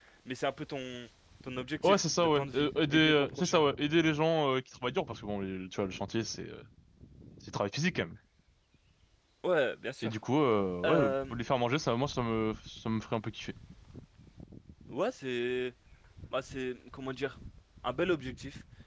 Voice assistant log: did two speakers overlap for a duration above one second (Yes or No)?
Yes